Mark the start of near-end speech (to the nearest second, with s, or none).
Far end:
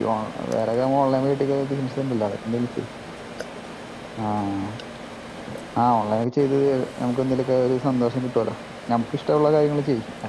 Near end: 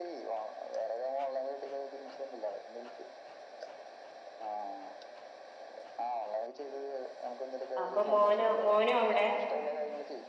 8 s